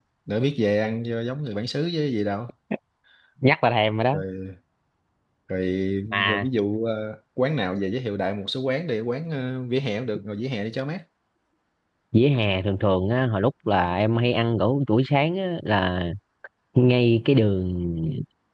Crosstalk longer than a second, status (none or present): none